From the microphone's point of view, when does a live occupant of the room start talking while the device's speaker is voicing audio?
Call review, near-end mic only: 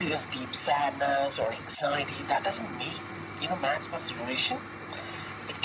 none

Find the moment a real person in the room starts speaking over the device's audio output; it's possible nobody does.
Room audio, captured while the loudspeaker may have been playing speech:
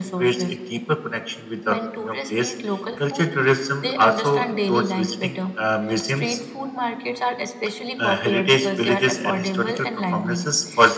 none

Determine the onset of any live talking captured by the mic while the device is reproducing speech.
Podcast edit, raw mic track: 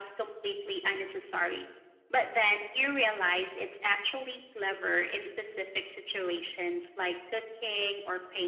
none

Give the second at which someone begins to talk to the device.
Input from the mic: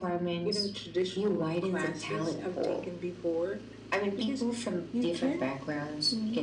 none

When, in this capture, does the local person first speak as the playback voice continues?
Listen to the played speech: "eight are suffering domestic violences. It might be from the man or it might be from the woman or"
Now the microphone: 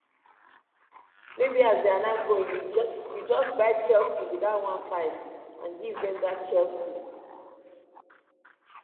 1.4 s

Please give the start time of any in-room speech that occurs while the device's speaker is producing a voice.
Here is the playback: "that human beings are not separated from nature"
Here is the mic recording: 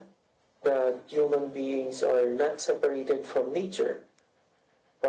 none

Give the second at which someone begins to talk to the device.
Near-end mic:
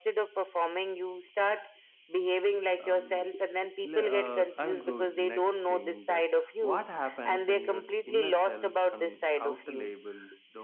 2.9 s

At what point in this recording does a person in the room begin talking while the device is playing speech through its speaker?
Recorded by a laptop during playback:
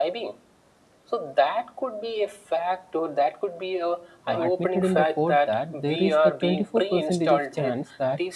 4.2 s

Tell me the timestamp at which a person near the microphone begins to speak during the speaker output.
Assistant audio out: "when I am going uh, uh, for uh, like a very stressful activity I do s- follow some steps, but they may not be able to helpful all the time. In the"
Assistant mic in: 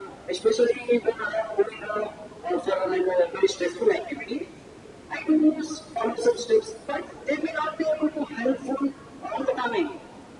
none

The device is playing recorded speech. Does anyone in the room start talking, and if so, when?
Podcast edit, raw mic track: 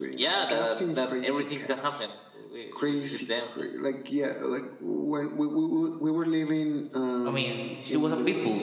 7.2 s

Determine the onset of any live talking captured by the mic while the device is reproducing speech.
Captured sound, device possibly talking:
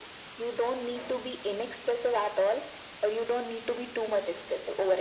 none

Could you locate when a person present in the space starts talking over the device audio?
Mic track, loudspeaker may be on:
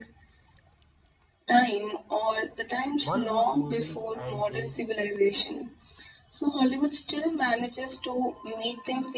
3.0 s

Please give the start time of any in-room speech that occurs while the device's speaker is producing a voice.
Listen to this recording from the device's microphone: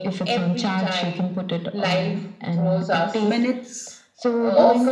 3.2 s

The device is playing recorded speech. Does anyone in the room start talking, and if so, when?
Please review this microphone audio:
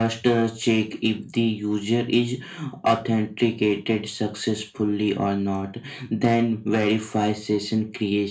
none

